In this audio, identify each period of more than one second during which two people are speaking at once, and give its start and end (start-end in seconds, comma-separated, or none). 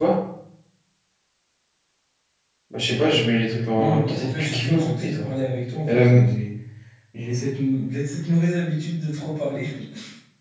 3.7-5.3